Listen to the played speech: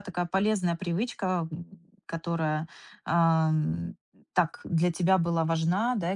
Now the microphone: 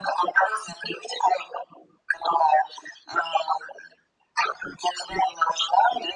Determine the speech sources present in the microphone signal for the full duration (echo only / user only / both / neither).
echo only